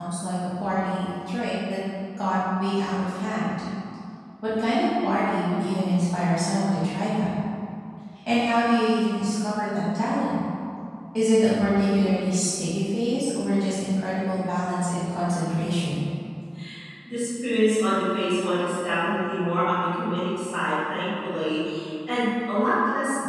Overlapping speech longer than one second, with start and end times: none

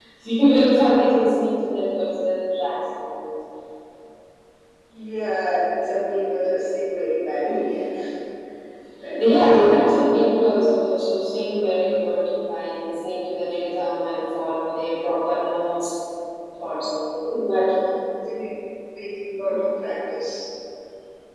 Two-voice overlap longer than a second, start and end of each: none

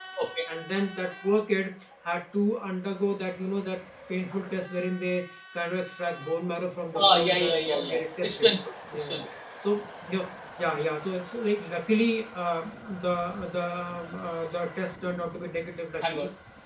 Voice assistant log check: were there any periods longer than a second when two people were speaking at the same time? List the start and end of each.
7.0-8.5

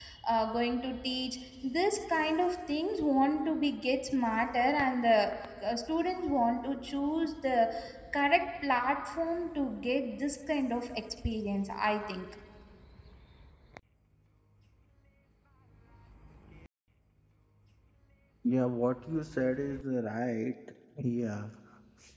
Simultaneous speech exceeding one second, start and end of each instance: none

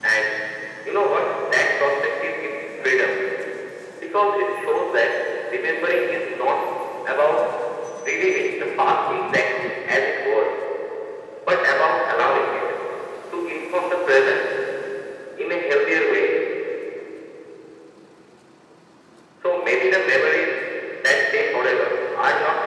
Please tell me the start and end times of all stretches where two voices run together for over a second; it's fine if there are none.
none

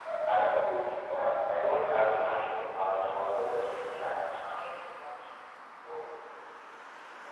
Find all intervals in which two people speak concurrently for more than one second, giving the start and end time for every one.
3.0-4.2

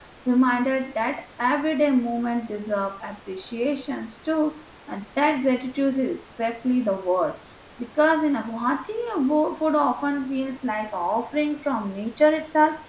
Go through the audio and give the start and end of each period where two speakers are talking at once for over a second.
none

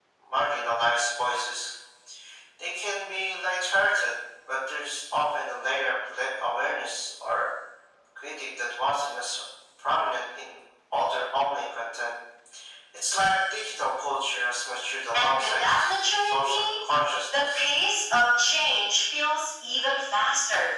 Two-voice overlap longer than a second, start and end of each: 15.1-16.7

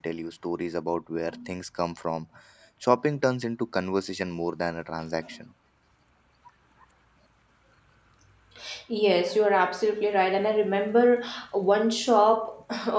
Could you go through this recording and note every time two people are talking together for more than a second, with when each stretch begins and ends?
none

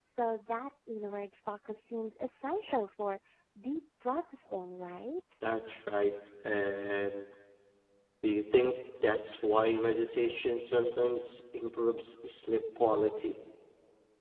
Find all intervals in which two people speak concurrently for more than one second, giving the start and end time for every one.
none

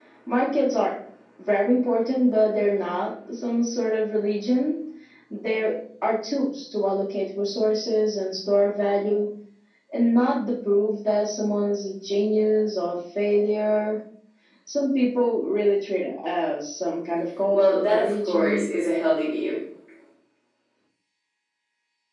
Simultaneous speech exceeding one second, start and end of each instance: 17.5-18.7

